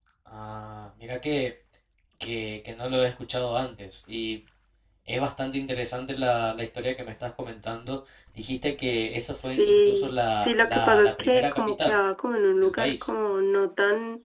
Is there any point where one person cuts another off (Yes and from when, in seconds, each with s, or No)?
Yes, from 9.4 s